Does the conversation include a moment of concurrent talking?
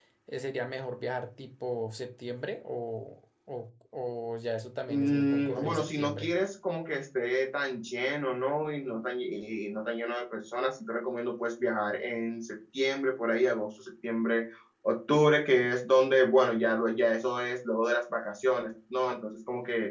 Yes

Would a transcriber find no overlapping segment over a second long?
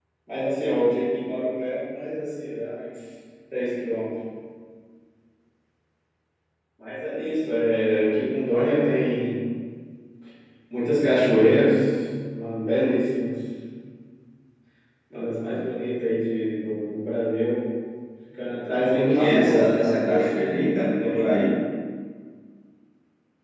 No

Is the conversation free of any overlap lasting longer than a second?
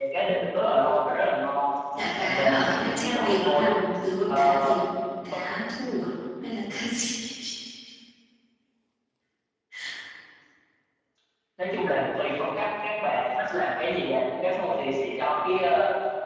No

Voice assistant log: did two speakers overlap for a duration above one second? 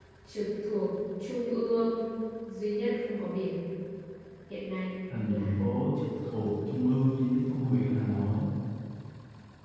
No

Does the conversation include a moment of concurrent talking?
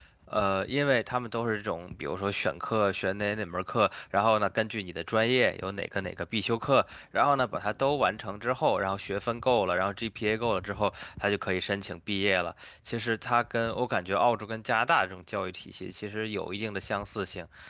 No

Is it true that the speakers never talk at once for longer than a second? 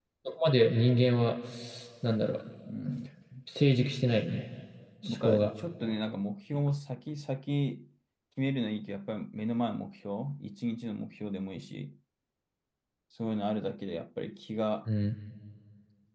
Yes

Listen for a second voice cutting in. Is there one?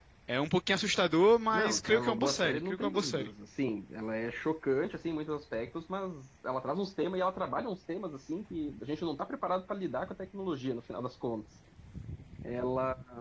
Yes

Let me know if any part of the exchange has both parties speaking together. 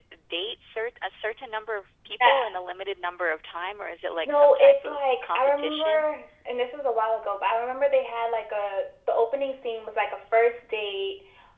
Yes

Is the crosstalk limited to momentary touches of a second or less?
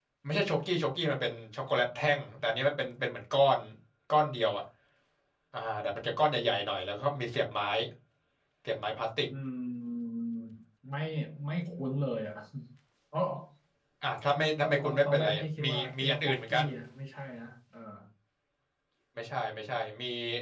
No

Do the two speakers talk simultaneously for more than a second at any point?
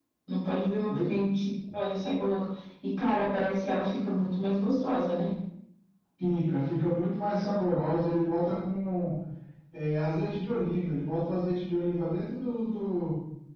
No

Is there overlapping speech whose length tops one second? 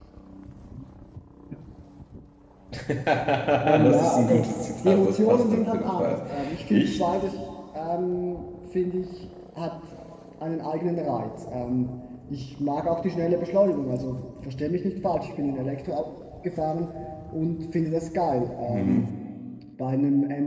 Yes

